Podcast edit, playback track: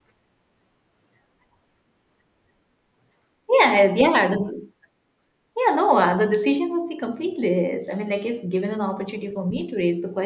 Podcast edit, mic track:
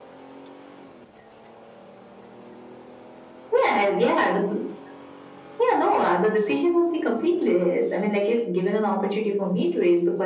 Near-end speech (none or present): none